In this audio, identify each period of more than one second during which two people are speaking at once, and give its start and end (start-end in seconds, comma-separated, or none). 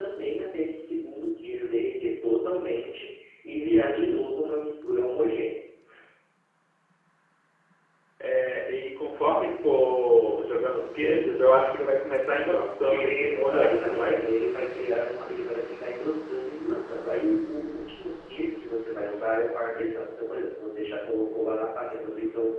12.9-14.2